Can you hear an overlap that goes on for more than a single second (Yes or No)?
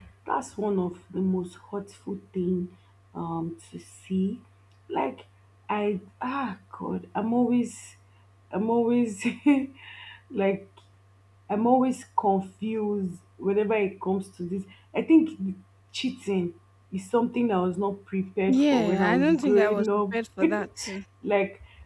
Yes